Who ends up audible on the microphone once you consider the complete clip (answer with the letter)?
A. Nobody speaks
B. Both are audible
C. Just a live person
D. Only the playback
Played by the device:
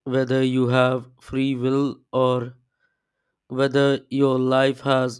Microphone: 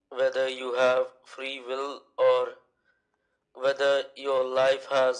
D